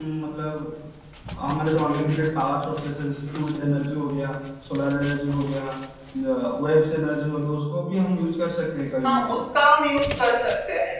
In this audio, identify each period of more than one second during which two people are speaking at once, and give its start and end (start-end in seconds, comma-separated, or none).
none